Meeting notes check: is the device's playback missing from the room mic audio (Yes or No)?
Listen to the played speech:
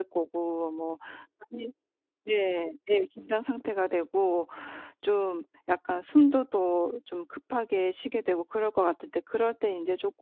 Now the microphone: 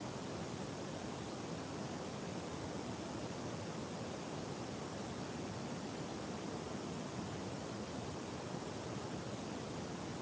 Yes